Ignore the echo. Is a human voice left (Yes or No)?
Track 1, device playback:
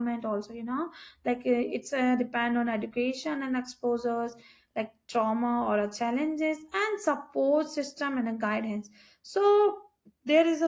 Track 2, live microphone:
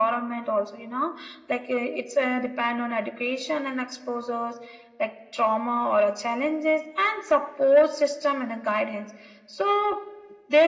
No